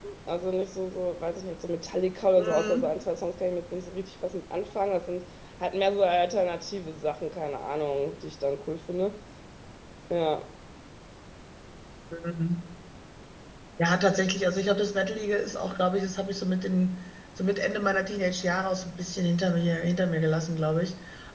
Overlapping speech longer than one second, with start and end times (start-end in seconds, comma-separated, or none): none